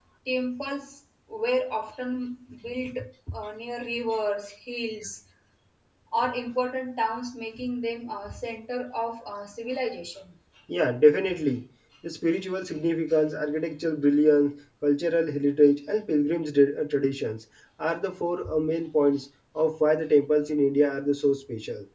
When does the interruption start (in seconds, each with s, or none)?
none